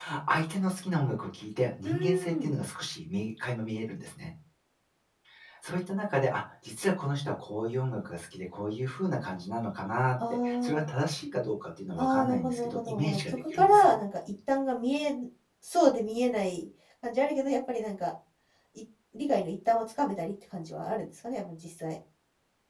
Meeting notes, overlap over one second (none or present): present